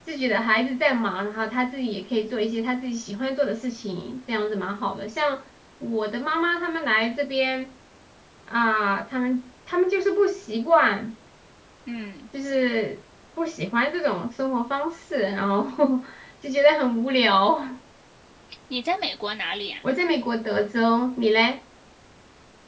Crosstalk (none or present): none